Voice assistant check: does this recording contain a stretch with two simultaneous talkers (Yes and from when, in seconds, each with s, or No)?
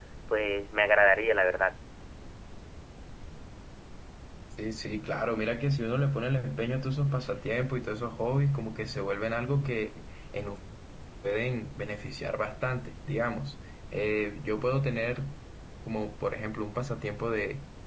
No